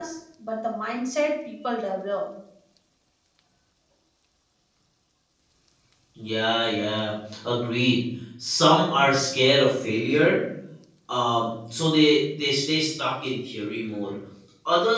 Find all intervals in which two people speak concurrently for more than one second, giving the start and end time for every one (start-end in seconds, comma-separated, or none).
none